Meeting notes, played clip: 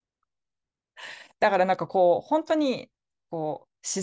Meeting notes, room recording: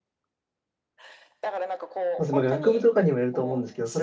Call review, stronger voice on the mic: user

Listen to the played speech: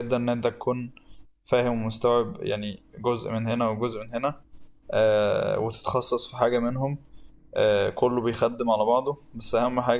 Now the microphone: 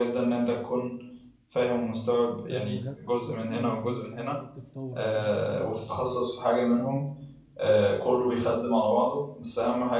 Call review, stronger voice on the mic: echo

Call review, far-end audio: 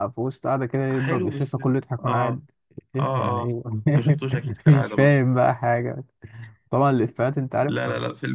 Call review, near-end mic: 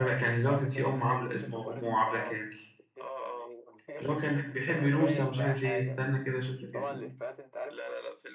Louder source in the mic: user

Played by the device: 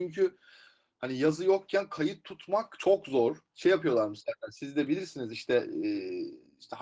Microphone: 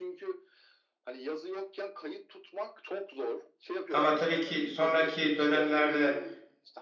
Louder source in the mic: user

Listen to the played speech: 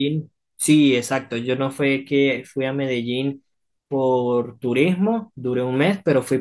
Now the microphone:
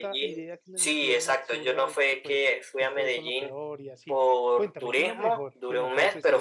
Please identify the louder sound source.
echo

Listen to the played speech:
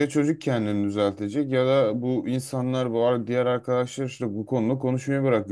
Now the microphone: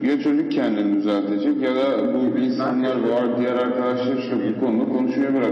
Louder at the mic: echo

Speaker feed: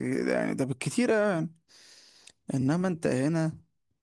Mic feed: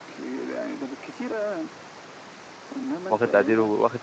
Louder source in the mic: user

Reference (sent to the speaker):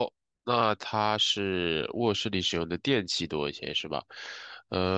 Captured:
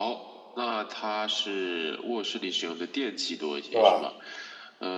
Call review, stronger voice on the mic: user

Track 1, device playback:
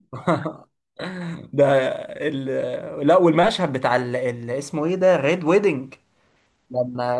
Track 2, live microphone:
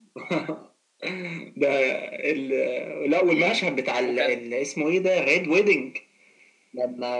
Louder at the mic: echo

